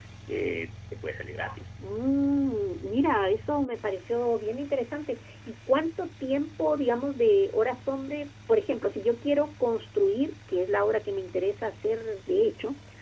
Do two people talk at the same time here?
No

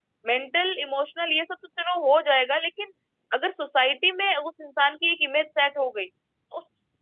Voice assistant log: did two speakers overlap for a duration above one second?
No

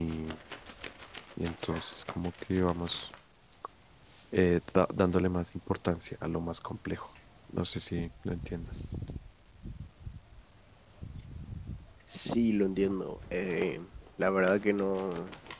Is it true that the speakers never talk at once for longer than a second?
Yes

